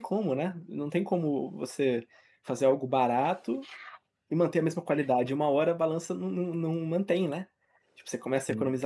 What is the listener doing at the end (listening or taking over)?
listening